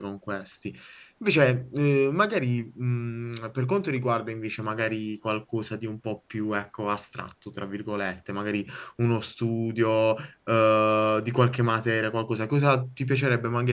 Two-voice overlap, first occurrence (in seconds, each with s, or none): none